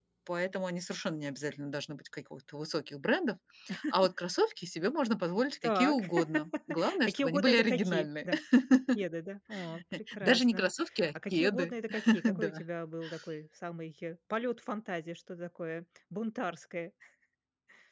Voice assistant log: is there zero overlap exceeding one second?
No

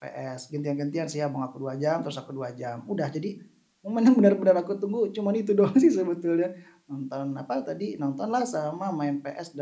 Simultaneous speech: No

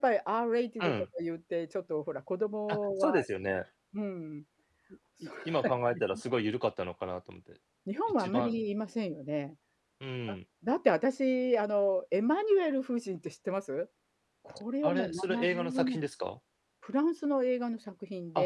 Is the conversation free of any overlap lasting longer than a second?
No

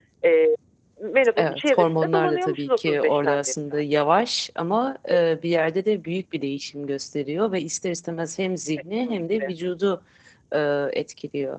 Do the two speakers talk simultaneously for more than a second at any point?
Yes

